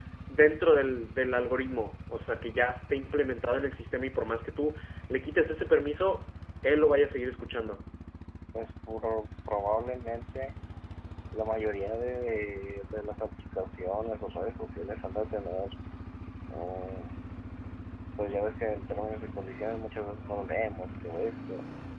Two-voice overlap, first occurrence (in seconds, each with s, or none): none